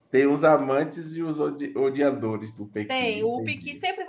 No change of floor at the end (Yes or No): No